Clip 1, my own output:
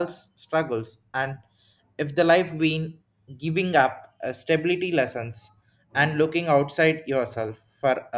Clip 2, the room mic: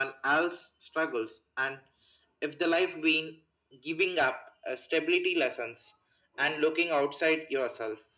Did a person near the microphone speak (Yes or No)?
No